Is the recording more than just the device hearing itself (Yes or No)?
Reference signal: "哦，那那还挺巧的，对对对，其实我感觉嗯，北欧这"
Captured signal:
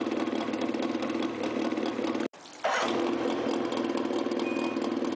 No